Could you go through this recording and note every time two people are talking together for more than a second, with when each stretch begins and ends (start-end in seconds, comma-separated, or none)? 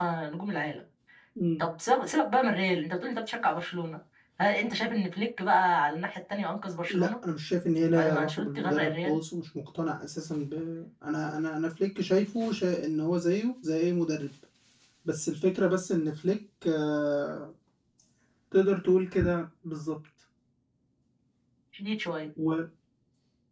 7.9-9.2